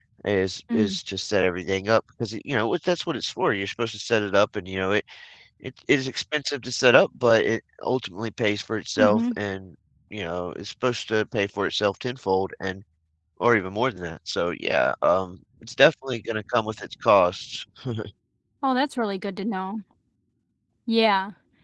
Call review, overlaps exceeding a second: none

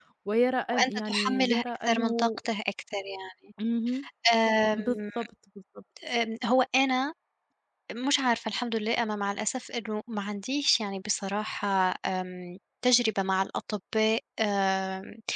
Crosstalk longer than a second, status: present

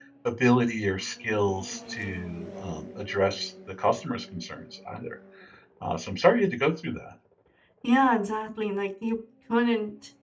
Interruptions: none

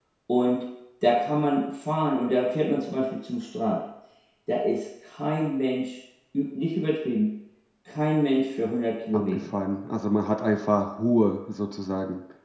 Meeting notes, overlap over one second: none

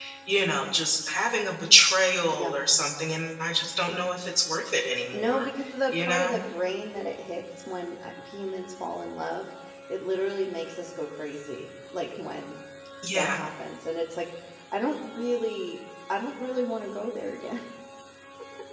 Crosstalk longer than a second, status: none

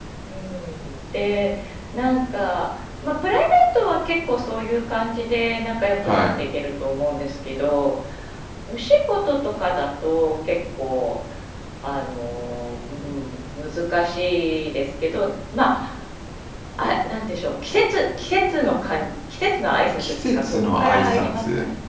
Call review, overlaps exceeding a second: present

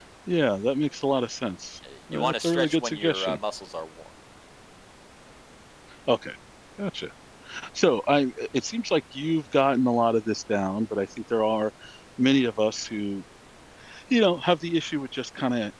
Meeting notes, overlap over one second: present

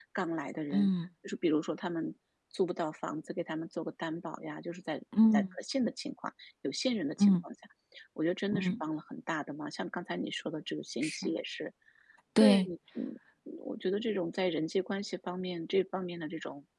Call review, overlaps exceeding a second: none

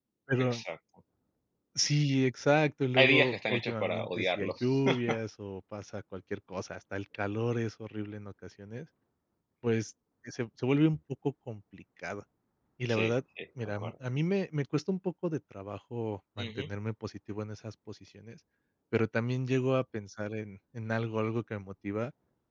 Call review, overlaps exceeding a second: present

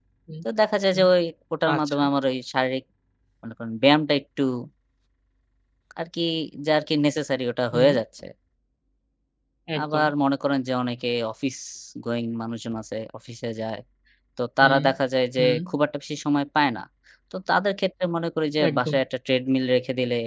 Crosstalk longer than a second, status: none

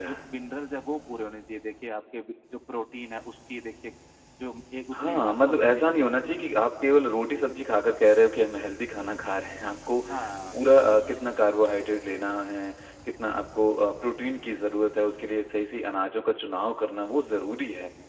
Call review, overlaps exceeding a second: present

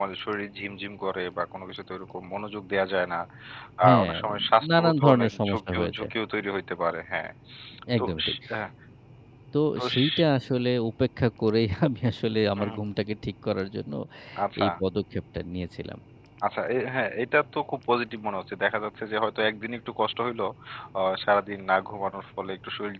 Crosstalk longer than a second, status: present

